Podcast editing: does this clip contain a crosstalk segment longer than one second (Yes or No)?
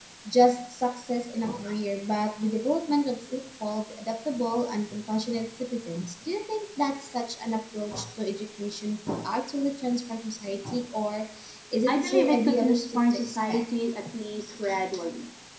Yes